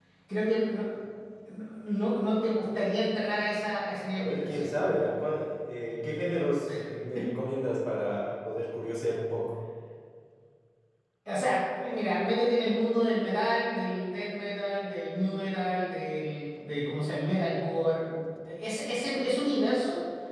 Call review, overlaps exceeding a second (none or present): none